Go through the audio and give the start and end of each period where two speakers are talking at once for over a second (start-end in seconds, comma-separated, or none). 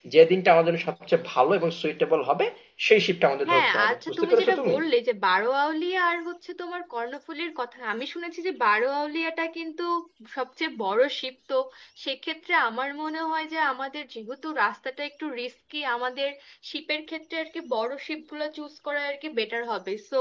3.5-4.8